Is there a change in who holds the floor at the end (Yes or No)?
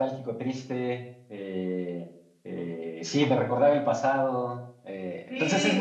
No